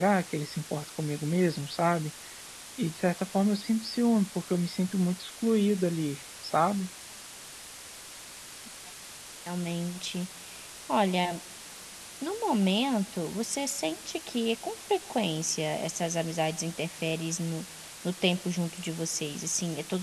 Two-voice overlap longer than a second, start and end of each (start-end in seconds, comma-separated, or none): none